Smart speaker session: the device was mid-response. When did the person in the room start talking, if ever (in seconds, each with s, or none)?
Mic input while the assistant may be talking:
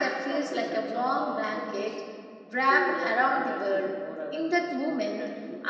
none